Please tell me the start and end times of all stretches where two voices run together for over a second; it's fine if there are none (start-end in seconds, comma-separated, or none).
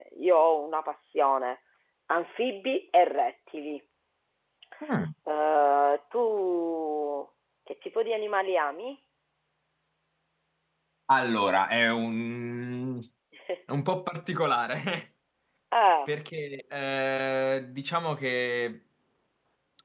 none